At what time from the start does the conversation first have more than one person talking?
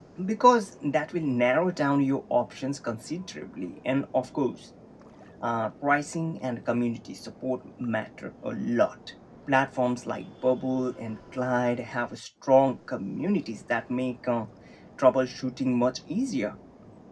none

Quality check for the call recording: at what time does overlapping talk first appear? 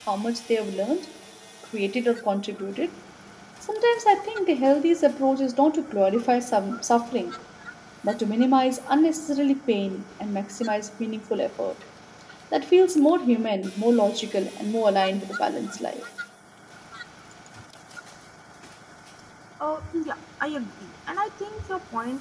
none

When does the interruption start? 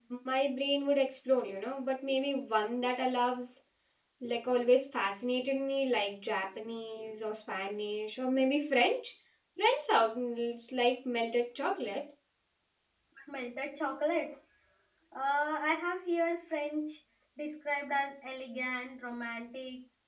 none

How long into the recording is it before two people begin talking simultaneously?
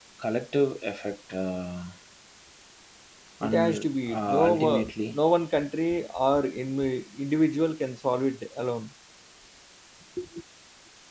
3.4 s

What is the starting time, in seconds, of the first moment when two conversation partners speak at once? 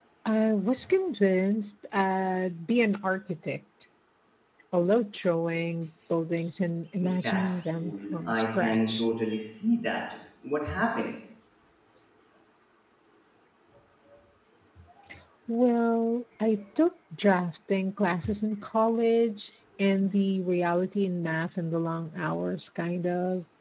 7.0 s

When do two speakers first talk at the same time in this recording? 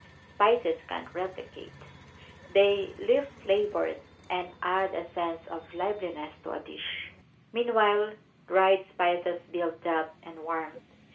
none

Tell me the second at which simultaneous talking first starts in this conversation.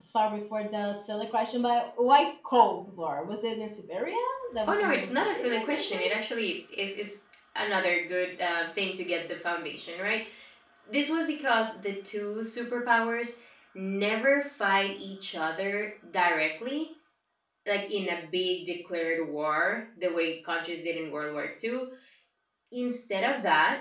4.7 s

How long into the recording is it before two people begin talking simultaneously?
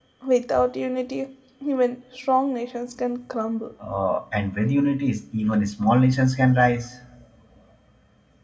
none

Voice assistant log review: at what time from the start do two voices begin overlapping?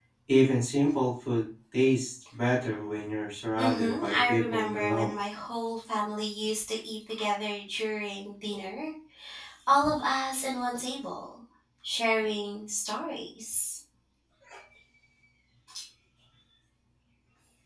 3.5 s

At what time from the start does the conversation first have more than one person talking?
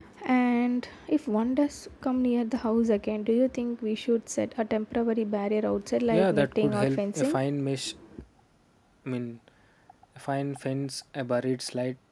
6.1 s

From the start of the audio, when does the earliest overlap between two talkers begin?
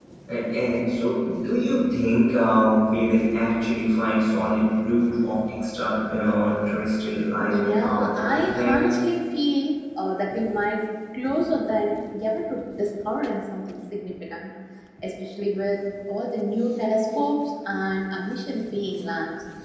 7.4 s

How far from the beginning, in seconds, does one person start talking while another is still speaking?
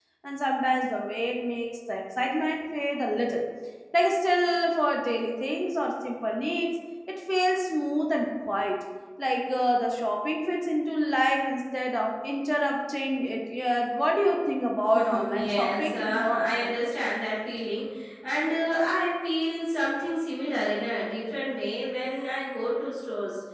14.9 s

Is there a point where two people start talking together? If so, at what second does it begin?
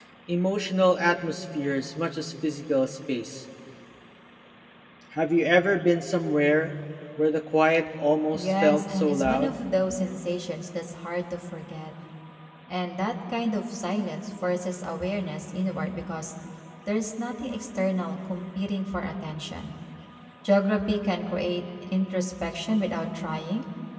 8.3 s

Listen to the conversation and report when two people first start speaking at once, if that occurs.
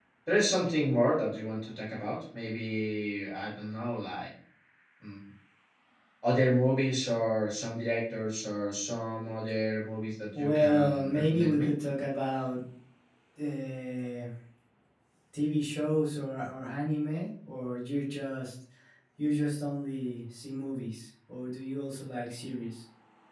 10.3 s

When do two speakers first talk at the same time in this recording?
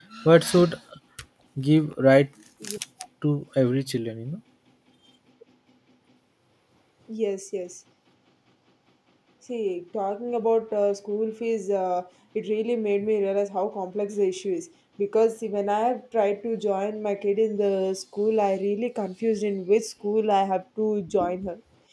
none

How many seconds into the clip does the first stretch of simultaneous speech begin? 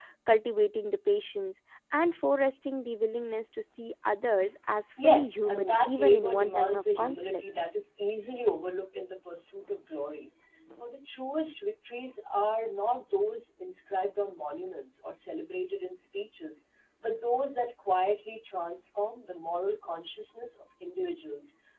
5.0 s

